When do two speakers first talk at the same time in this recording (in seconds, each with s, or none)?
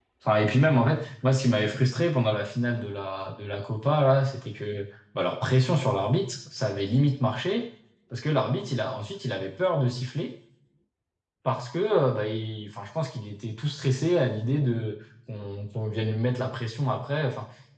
none